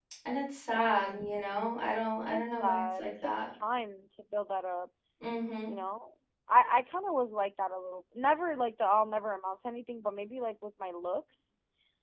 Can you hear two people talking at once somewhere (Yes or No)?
Yes